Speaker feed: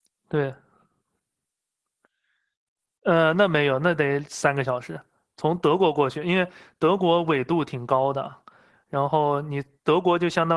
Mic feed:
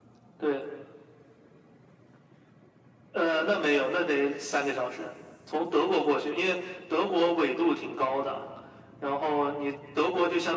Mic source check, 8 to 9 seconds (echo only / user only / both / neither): echo only